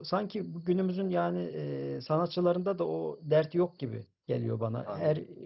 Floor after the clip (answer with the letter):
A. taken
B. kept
B